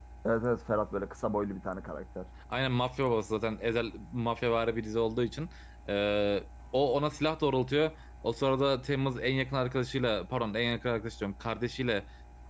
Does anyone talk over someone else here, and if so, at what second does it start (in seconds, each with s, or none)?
none